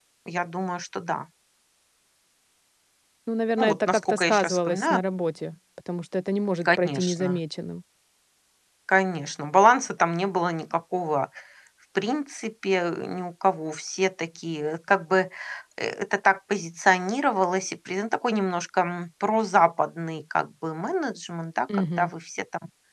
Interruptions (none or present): present